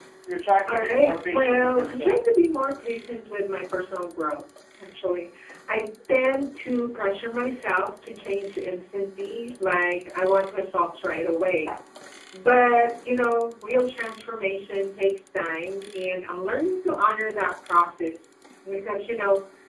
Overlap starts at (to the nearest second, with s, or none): 1 s